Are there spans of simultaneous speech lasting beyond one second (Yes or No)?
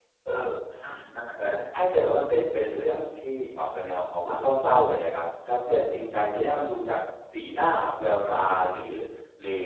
No